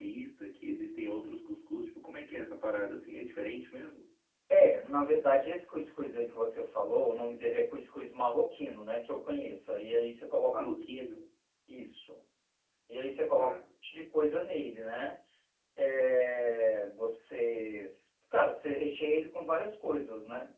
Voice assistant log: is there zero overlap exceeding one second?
Yes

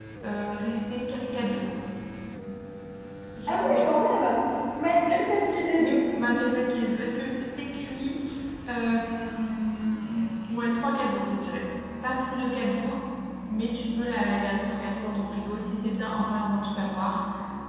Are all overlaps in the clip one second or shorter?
Yes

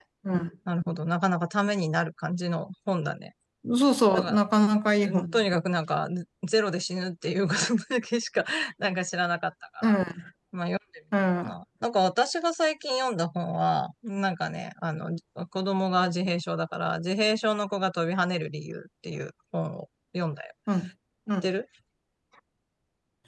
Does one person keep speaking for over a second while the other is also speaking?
No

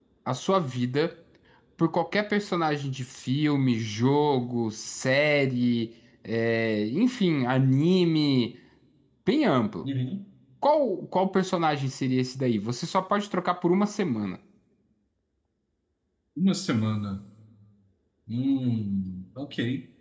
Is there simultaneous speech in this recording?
No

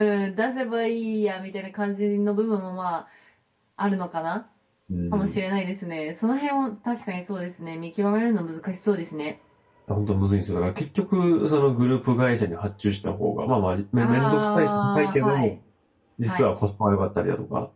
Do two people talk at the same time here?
Yes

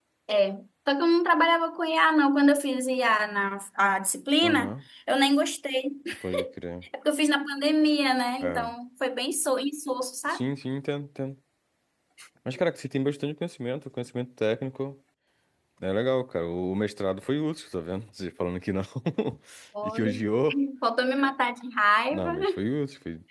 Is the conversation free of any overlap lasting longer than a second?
Yes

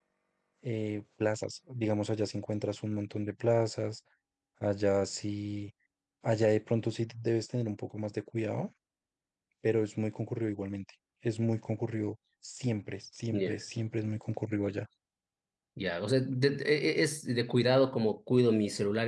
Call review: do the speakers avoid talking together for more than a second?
Yes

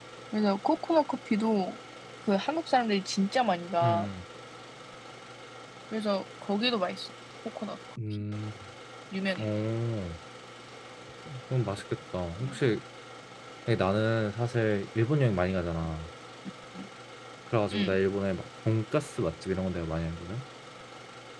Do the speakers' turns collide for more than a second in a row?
No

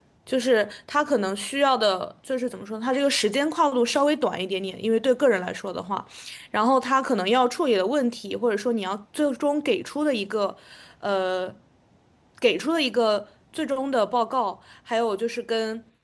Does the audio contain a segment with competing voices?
No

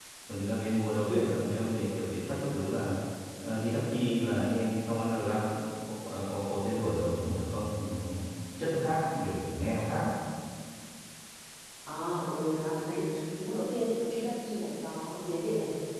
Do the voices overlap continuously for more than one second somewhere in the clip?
No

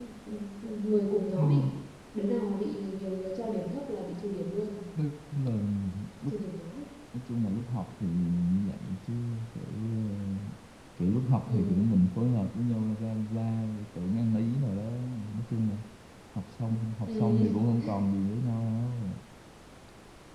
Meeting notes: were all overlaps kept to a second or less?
Yes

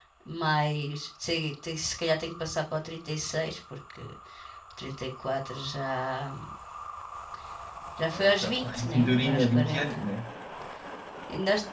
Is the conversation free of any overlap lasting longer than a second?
No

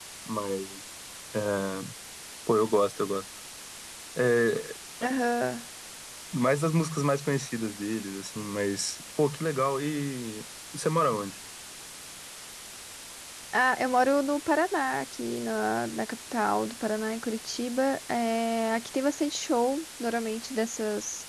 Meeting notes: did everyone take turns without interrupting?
Yes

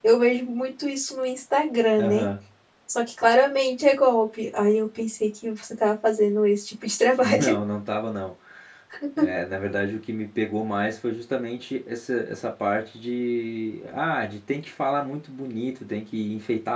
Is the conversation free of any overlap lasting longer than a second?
Yes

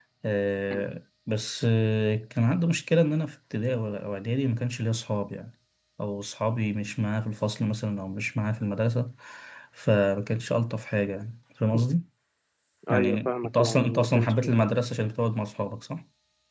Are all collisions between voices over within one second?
No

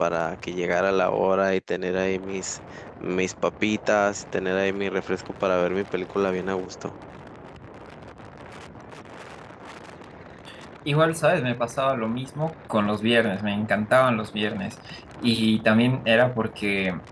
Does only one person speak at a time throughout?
Yes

